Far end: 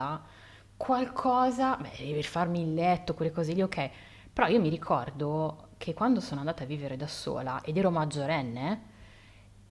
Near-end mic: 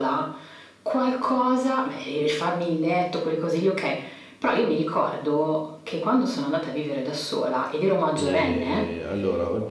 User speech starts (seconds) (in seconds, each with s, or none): 8.2 s